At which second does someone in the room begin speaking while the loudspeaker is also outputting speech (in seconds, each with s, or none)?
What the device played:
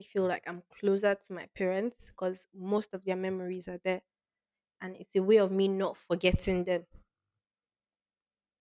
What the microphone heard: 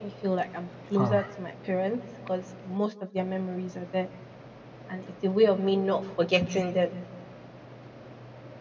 1.0 s